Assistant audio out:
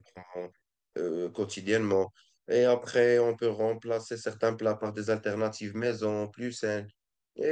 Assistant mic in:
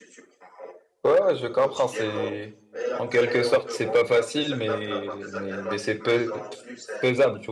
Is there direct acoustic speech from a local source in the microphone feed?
Yes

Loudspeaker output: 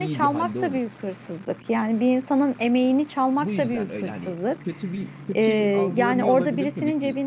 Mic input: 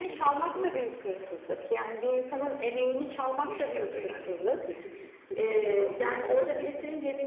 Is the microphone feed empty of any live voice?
Yes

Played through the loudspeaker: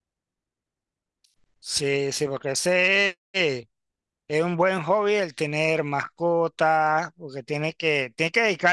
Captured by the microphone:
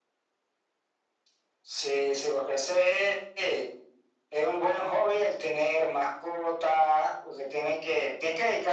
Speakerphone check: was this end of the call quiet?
Yes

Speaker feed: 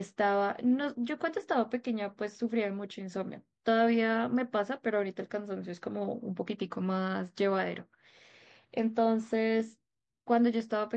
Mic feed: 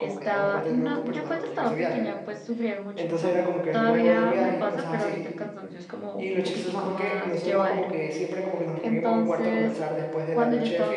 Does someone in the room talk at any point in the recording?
Yes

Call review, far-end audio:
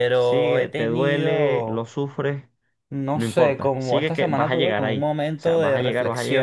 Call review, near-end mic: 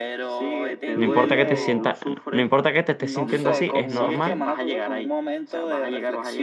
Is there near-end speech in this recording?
Yes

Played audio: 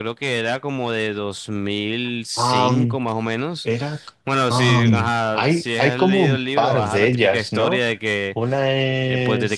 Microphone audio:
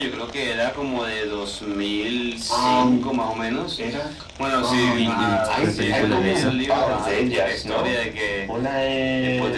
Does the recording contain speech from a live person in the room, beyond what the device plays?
Yes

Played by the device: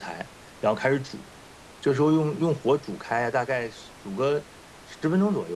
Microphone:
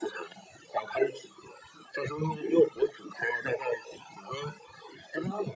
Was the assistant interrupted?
No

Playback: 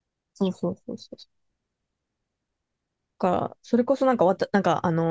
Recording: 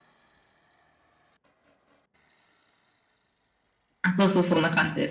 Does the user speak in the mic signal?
Yes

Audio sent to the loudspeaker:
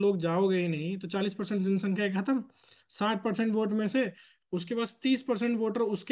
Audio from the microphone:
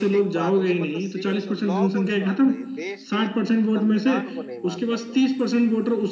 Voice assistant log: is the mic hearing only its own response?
No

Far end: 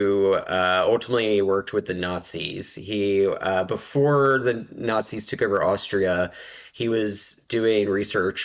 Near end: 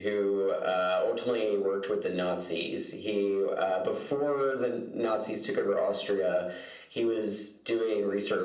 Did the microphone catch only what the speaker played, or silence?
Yes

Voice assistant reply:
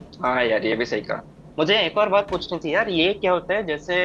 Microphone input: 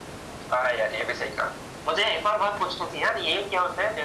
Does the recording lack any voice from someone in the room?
Yes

